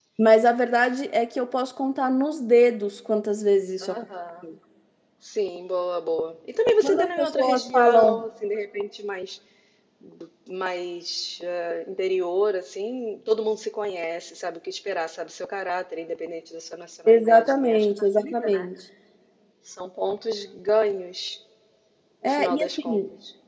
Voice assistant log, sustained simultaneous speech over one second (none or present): present